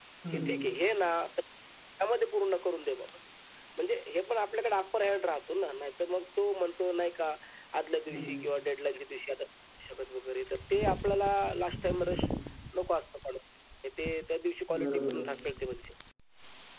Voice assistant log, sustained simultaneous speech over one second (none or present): none